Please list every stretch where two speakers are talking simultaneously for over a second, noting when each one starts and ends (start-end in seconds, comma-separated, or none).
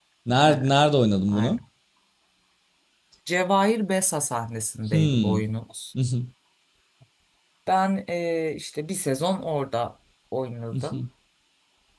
none